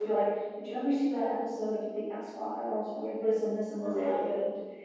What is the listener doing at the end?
listening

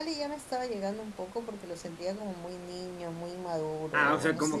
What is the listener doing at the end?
taking over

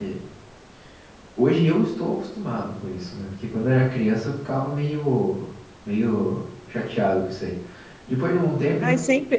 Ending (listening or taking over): taking over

